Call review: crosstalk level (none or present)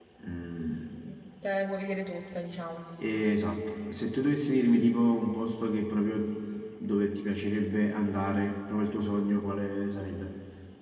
none